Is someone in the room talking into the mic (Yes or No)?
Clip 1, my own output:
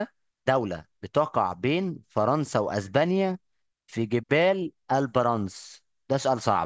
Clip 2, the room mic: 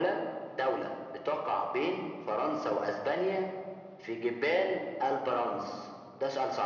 No